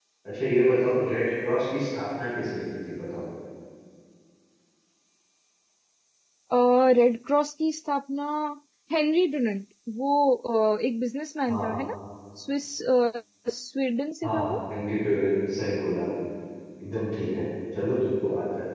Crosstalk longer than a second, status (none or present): none